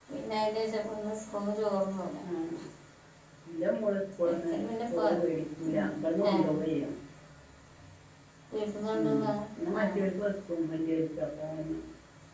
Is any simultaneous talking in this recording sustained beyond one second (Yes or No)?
No